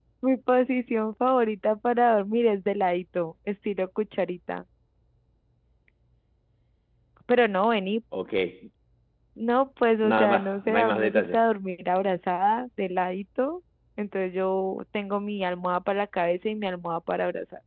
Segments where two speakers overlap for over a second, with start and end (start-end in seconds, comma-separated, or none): 10.0-11.4